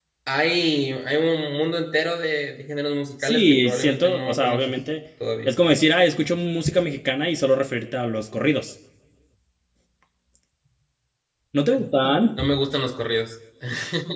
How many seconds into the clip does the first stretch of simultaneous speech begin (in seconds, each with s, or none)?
3.2 s